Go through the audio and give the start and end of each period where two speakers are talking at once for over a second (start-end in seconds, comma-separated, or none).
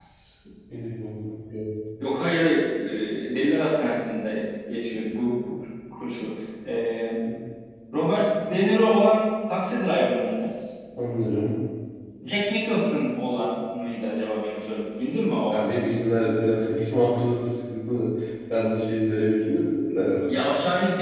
none